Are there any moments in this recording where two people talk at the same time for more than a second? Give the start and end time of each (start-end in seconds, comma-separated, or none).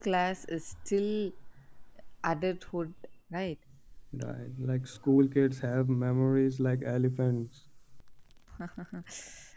none